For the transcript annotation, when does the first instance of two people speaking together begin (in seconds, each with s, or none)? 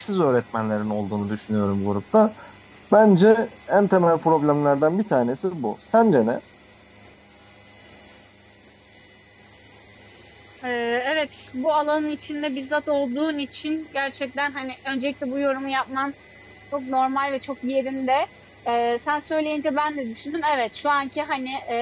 none